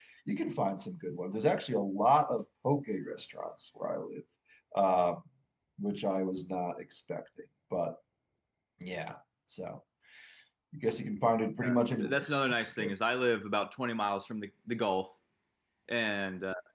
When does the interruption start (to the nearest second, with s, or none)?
12 s